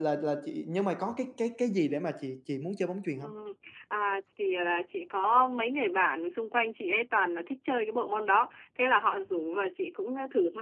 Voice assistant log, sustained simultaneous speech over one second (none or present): none